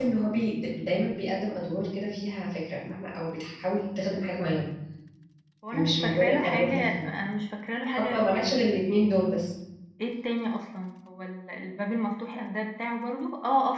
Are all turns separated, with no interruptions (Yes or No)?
No